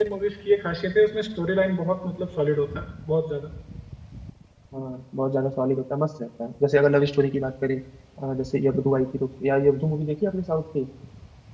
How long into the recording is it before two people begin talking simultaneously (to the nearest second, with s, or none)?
none